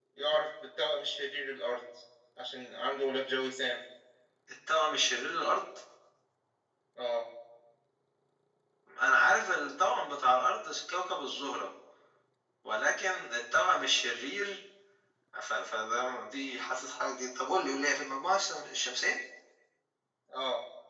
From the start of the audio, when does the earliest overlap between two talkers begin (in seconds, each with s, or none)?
none